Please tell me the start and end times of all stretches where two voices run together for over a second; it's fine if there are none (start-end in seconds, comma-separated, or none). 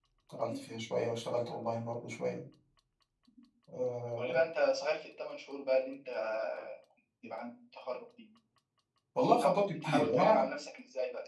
9.2-10.4